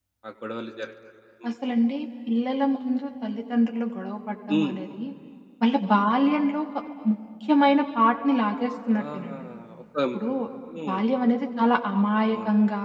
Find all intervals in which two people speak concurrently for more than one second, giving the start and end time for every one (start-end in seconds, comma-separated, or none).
none